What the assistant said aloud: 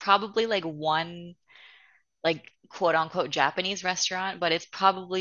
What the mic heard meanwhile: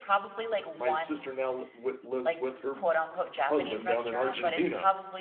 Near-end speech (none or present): present